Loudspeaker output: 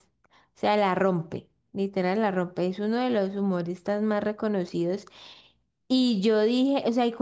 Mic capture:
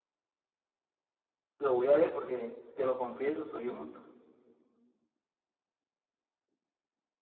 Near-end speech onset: 1.6 s

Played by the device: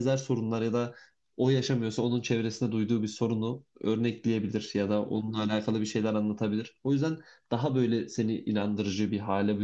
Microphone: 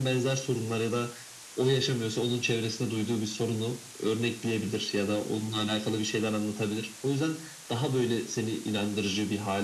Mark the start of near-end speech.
none

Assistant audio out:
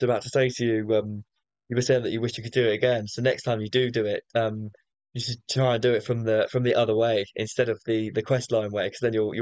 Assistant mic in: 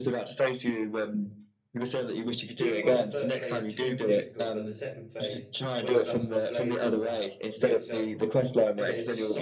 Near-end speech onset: 2.6 s

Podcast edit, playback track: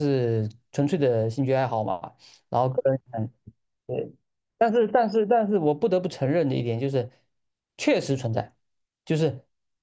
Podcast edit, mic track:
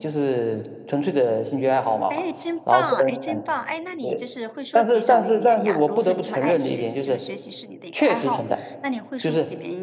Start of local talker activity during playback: 2.1 s

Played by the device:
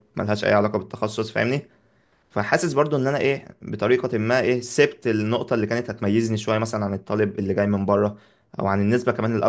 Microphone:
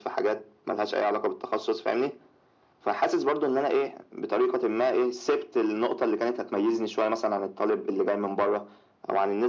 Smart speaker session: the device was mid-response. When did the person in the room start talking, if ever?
none

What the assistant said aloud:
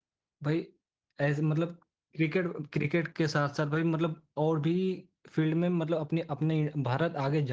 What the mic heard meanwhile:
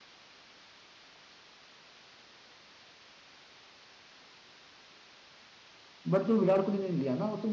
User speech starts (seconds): 6.1 s

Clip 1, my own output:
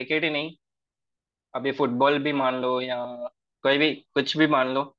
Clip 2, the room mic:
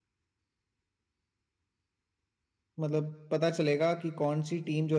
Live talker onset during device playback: 2.8 s

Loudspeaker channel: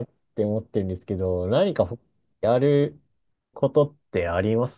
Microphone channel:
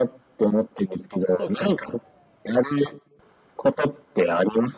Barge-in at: 1.4 s

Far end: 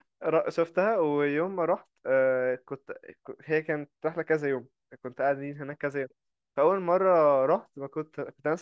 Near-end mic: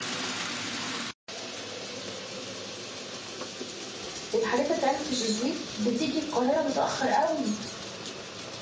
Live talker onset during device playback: 4.3 s

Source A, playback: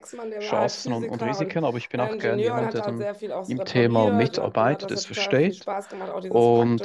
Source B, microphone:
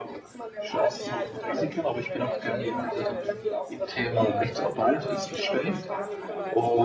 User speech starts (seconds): 1.0 s

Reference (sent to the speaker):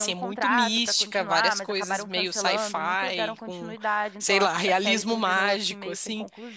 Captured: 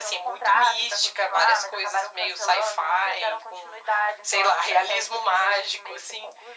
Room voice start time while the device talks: none

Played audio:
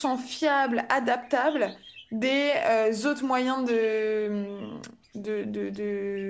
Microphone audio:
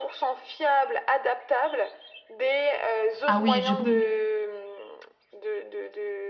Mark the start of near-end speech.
3.3 s

